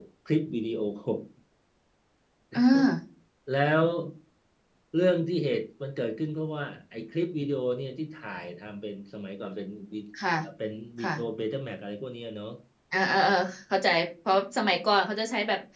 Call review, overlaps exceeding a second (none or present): none